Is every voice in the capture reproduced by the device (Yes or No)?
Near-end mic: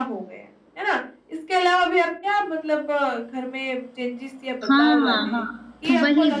No